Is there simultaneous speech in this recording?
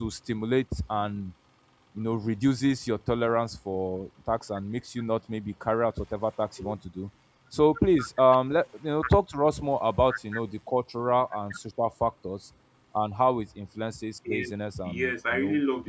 Yes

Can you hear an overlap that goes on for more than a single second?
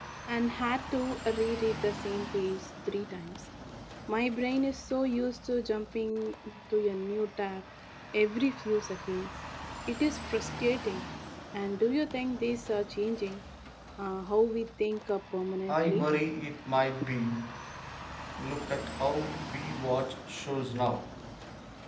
No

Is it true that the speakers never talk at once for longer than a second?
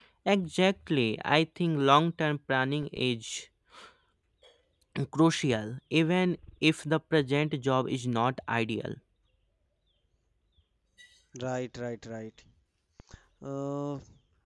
Yes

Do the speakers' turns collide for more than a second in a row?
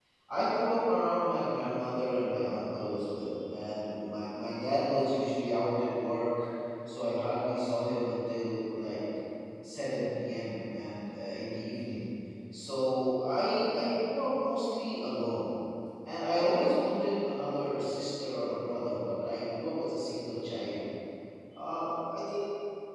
No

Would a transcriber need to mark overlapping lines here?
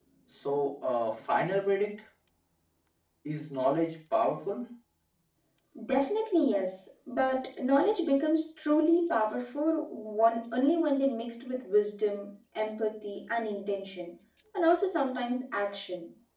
No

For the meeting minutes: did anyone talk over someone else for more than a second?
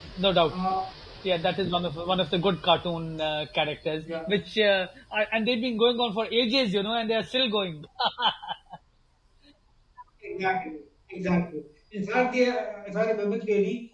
No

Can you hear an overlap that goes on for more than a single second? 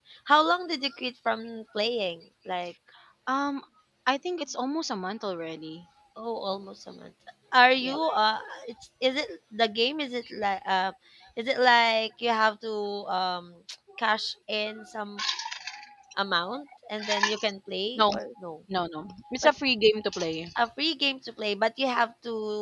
No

